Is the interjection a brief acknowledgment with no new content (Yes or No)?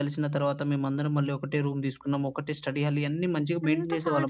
No